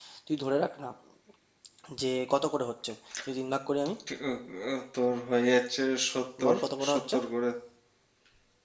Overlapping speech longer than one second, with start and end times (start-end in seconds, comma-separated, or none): none